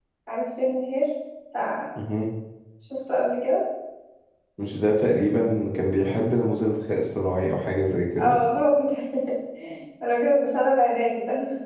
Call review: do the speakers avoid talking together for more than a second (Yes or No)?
Yes